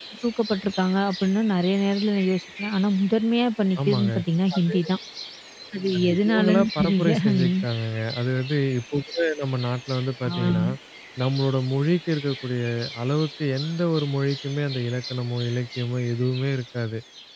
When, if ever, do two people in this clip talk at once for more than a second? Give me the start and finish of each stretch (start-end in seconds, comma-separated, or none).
6.3-7.5